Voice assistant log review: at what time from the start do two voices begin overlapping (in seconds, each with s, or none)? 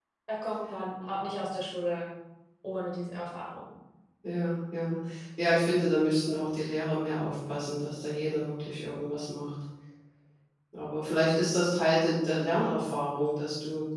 none